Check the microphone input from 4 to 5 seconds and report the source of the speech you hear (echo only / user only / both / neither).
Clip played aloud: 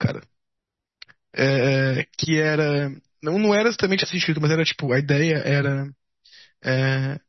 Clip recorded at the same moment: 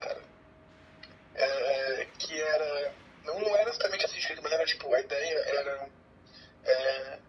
echo only